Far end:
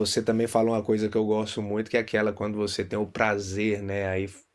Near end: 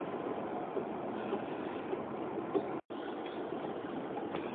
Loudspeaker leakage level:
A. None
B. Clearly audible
A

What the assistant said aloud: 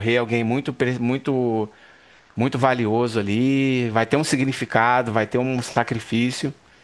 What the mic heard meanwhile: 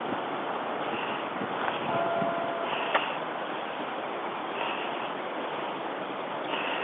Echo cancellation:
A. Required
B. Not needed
B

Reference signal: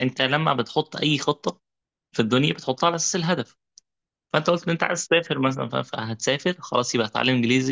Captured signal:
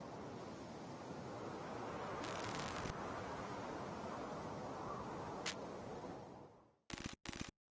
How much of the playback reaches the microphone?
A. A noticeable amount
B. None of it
B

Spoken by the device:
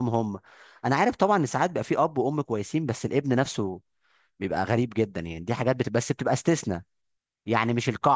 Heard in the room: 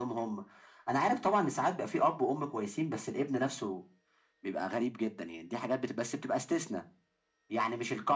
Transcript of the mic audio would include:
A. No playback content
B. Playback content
B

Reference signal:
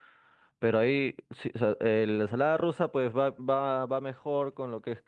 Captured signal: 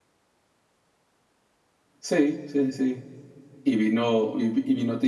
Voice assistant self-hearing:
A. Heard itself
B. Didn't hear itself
B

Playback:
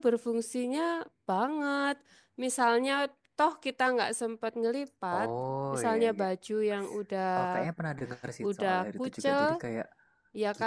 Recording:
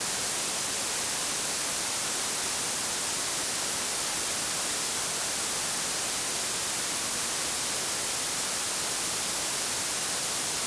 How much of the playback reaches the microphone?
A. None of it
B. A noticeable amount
A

